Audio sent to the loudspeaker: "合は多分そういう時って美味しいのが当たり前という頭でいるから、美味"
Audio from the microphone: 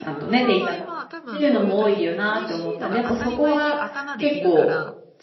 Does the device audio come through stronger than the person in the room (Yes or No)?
No